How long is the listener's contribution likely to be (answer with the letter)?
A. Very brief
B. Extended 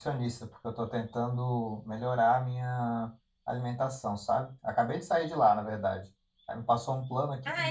A